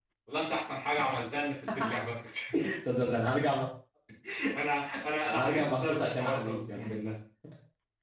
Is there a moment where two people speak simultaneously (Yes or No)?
Yes